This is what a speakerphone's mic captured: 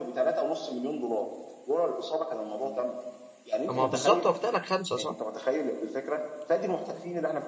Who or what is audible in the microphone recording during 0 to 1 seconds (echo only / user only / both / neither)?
echo only